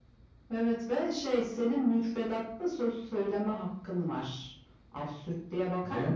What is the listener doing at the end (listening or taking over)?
taking over